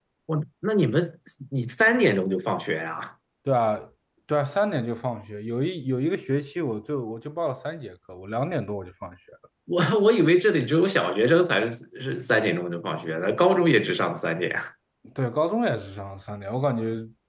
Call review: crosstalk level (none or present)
none